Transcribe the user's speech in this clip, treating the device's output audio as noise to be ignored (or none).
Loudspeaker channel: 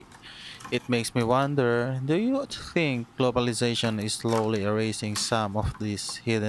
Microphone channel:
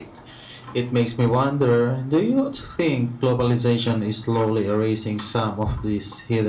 none